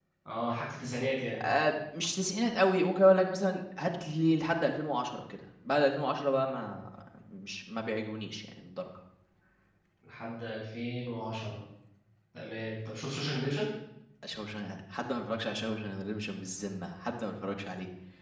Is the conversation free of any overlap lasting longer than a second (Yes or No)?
Yes